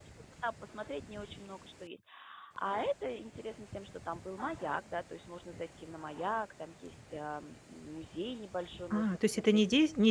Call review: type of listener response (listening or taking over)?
taking over